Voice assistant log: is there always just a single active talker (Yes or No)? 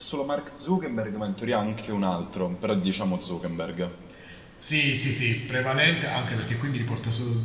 Yes